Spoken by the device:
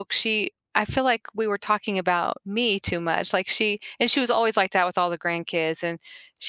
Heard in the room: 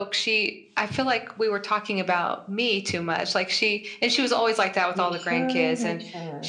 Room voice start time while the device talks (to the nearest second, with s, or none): 5 s